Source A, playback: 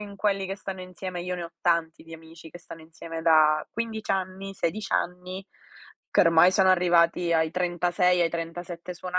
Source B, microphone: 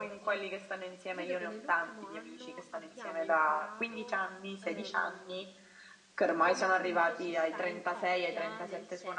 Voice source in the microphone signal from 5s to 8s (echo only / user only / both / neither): both